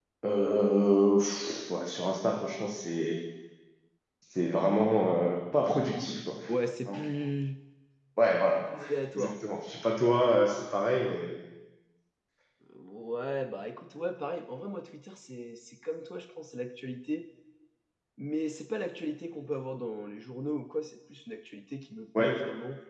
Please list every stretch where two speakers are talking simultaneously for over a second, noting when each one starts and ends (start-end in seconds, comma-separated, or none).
none